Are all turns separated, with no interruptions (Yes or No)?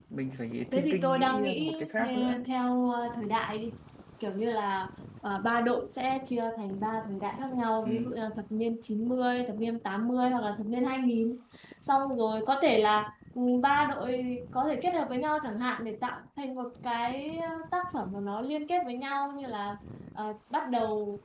No